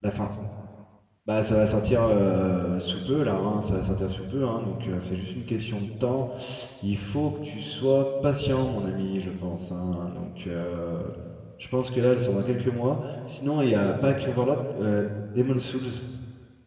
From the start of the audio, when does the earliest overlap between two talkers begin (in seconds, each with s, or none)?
none